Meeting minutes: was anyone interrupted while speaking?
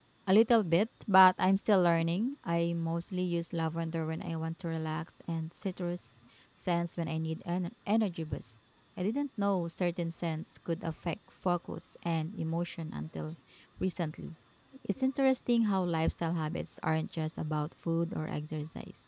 No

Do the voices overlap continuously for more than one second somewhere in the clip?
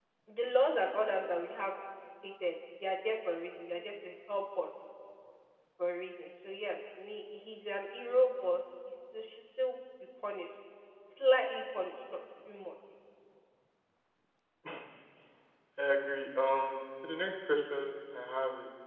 No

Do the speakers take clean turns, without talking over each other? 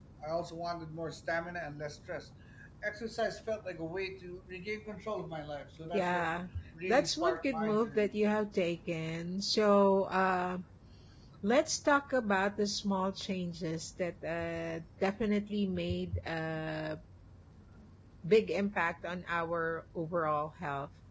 No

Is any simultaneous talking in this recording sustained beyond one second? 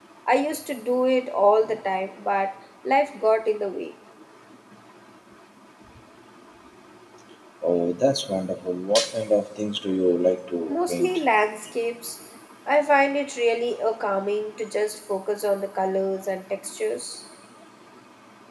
No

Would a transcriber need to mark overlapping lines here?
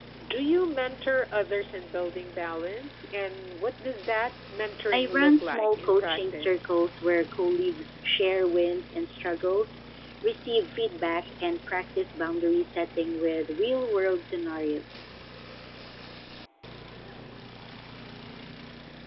Yes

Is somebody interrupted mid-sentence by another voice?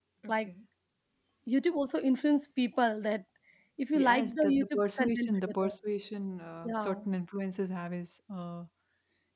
Yes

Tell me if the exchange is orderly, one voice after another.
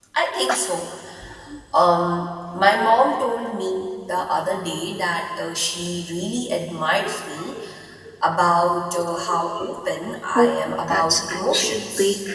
No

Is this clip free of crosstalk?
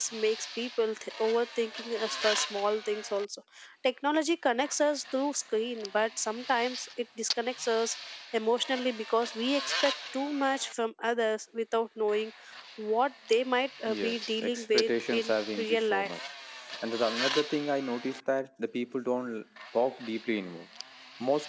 No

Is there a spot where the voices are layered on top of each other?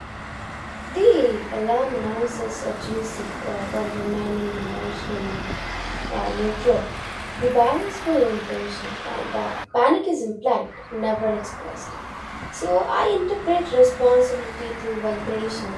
No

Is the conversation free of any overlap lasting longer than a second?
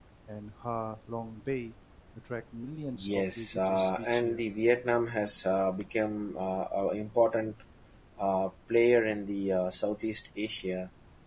No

